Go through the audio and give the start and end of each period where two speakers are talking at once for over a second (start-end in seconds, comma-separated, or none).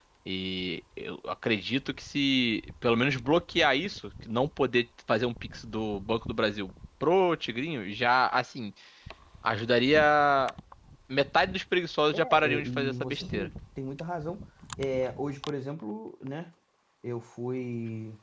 12.1-13.5